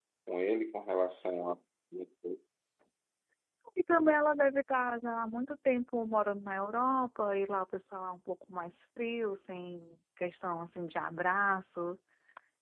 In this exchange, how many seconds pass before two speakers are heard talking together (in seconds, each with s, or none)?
none